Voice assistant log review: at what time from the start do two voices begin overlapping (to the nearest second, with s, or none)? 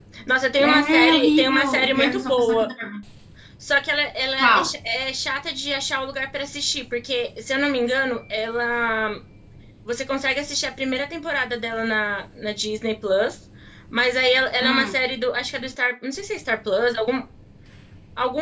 1 s